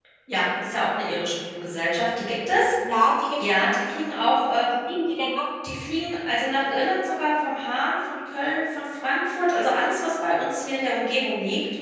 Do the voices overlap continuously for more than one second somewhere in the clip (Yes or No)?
No